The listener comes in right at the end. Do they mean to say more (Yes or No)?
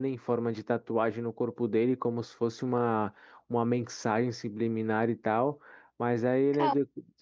No